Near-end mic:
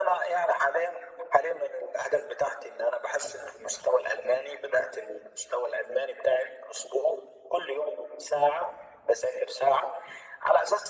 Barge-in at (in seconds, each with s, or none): none